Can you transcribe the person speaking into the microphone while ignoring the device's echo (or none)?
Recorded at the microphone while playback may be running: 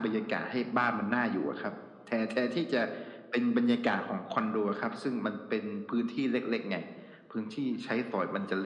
none